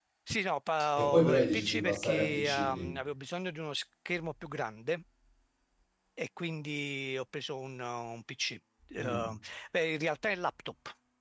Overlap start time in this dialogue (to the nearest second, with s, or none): 1 s